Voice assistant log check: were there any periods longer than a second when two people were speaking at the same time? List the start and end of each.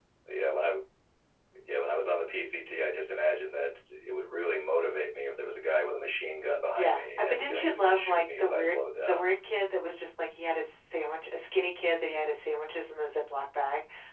6.8-9.2

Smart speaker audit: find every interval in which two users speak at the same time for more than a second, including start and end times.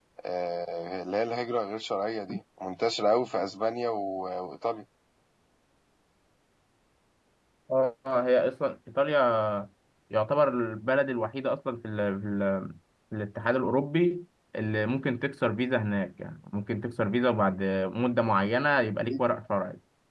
none

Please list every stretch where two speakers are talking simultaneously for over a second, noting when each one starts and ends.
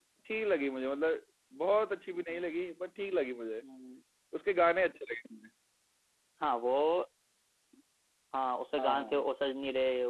none

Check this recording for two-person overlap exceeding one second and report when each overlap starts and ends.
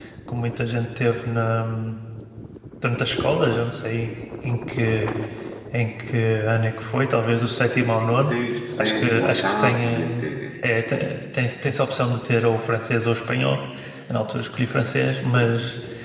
8.8-10.2

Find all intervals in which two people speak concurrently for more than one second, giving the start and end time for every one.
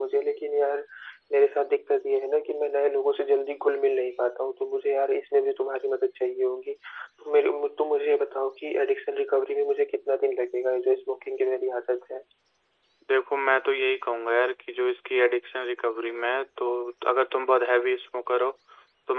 none

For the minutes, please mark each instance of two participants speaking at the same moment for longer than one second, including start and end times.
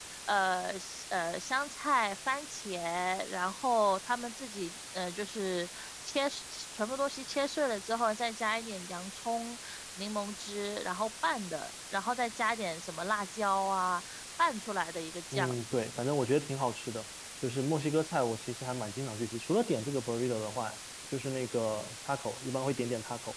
none

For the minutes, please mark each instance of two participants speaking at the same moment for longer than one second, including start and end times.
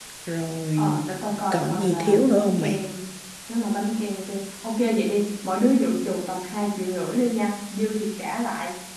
1.5-2.8

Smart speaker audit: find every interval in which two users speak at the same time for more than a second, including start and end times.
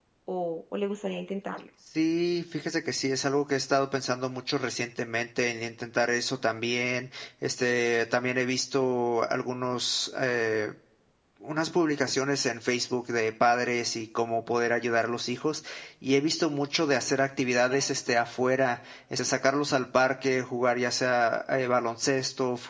none

